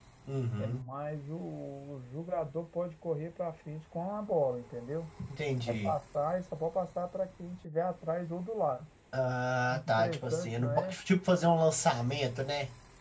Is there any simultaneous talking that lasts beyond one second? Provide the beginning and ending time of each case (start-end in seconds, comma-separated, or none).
9.7-11.0